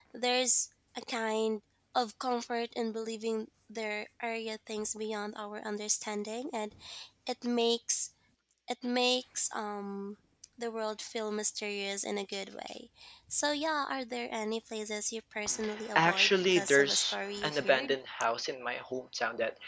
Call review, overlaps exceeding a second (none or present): present